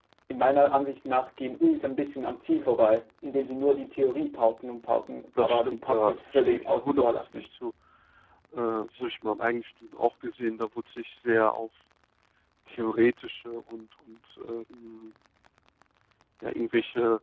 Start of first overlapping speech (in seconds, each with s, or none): 5.4 s